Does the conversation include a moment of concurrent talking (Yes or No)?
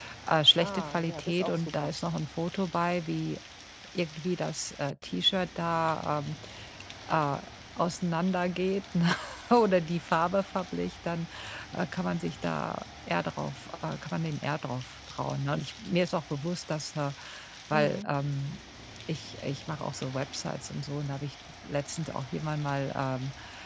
Yes